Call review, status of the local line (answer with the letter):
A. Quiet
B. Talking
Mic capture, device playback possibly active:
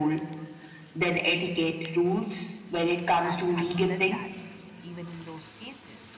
B